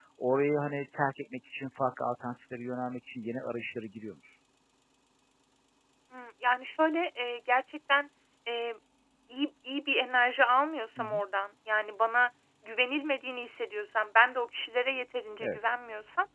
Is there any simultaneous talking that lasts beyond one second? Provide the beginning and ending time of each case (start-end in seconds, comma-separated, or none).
none